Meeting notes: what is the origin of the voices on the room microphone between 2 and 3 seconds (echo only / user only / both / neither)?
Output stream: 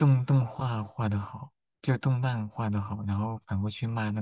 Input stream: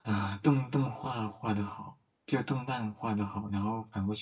echo only